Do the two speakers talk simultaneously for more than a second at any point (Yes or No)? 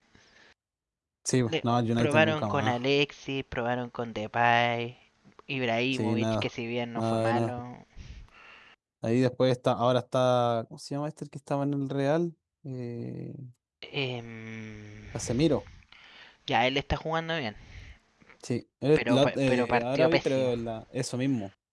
Yes